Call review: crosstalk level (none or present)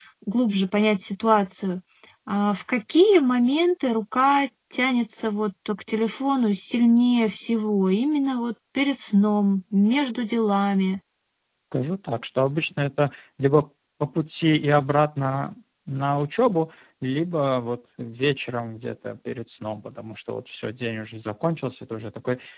none